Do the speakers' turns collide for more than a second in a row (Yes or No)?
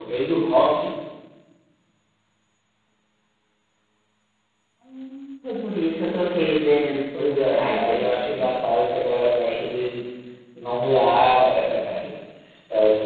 Yes